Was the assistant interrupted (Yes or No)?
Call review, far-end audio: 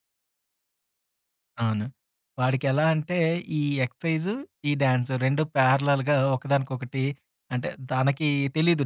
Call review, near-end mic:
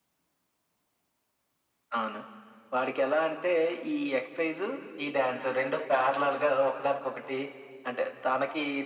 No